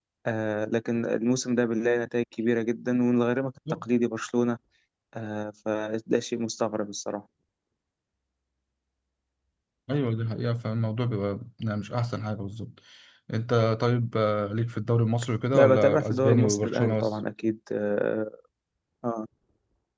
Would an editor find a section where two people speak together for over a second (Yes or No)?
Yes